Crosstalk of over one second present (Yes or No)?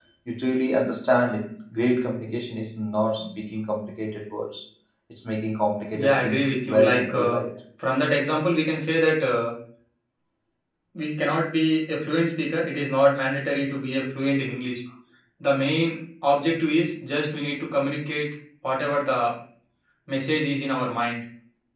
Yes